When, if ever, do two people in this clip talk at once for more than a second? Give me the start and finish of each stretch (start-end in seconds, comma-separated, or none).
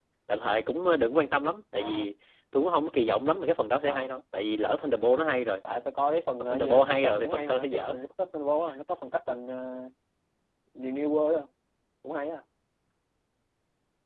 6.4-8.0